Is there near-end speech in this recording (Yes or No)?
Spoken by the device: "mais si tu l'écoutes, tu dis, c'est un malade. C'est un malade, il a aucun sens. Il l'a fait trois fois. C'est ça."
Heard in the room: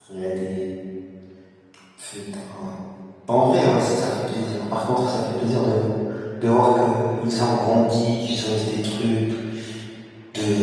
Yes